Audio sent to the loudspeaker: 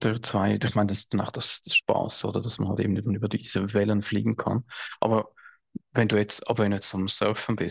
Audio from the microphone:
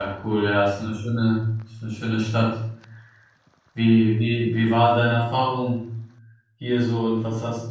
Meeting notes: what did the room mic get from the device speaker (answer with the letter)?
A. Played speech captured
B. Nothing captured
B